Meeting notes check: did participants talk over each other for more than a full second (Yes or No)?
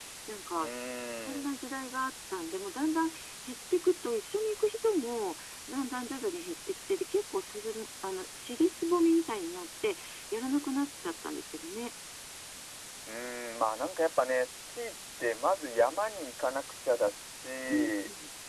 No